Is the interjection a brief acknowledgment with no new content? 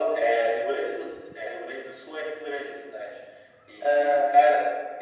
Yes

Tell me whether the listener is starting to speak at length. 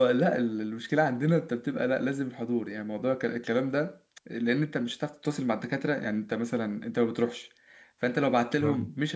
No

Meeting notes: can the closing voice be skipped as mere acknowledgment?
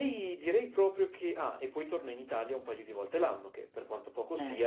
Yes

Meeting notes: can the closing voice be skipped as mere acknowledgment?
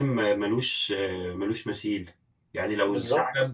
Yes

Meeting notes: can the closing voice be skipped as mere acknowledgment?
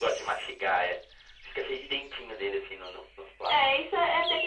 No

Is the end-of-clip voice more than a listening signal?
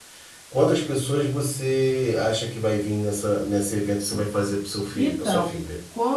Yes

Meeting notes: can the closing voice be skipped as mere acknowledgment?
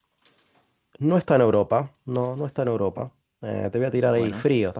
Yes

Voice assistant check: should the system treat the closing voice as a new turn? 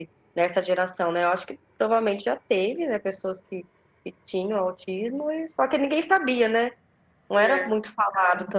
No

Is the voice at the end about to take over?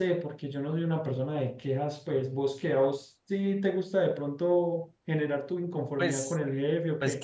Yes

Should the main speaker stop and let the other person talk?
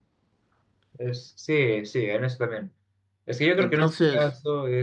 No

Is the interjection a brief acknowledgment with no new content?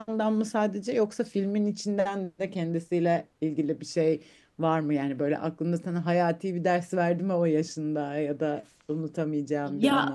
No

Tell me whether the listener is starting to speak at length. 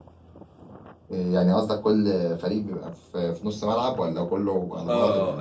Yes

